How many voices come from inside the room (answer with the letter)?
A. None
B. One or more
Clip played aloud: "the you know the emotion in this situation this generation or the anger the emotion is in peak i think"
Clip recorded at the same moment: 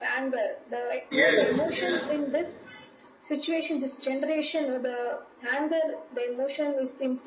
B